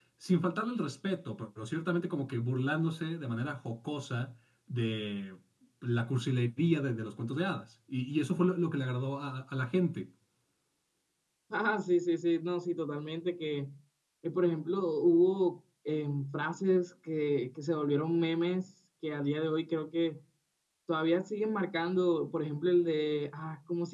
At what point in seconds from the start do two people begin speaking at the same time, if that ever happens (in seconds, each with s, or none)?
none